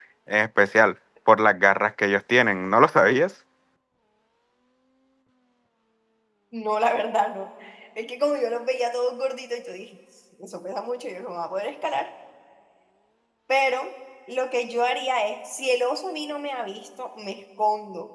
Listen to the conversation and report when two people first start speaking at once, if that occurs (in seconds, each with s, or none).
none